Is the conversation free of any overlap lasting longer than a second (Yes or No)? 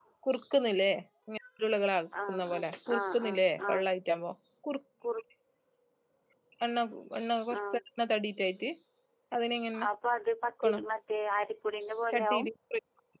No